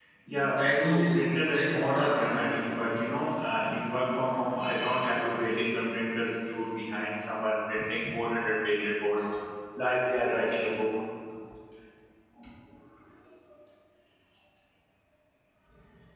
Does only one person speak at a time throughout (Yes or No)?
No